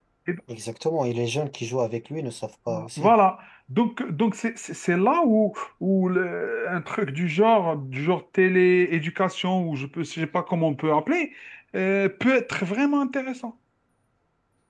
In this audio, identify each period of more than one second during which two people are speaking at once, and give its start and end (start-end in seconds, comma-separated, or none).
none